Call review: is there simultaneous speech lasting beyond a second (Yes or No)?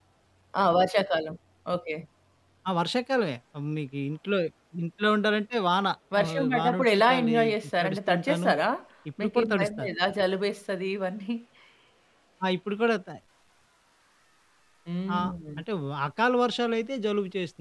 Yes